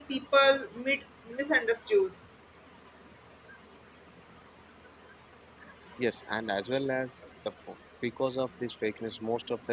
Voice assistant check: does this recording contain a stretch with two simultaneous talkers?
No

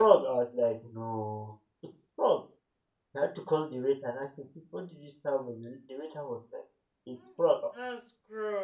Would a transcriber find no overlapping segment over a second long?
Yes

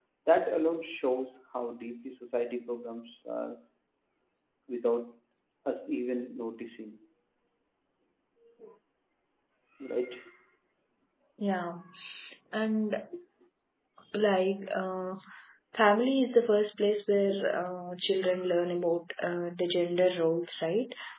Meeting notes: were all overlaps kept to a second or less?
Yes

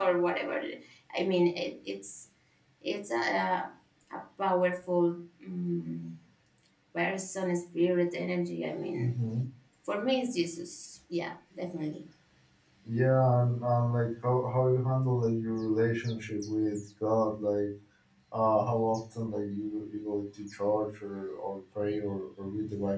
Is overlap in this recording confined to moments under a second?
Yes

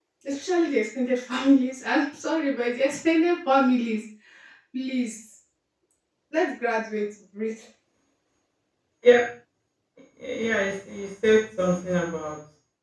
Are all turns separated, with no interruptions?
Yes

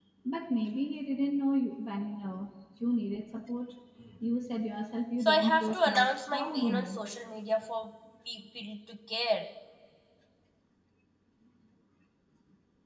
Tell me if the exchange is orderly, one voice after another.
No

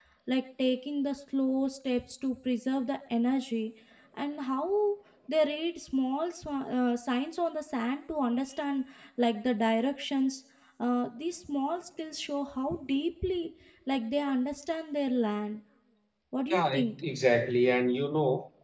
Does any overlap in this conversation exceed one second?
No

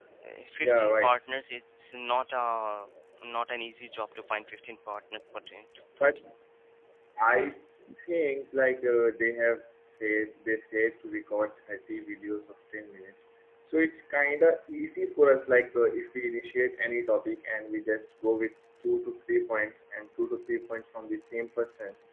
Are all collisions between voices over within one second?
Yes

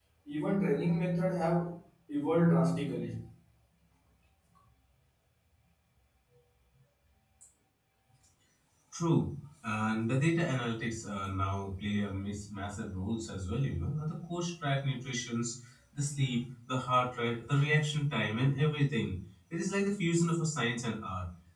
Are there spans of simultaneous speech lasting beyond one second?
No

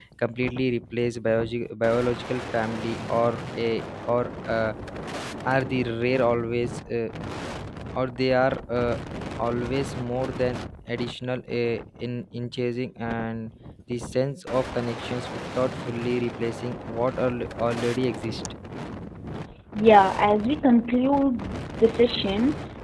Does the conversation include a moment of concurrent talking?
No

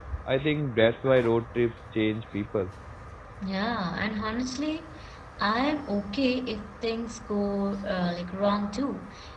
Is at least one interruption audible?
No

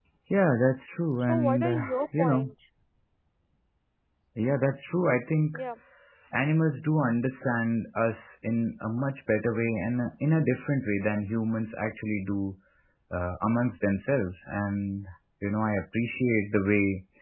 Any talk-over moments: Yes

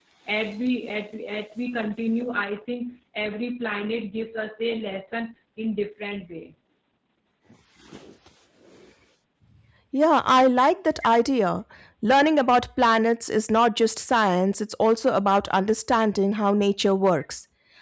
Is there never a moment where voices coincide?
Yes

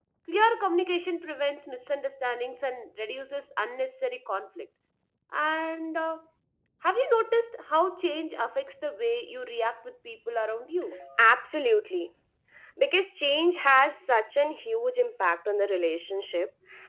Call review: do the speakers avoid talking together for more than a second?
Yes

